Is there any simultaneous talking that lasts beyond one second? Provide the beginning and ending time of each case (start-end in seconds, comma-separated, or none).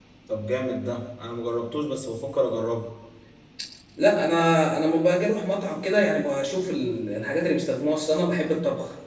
none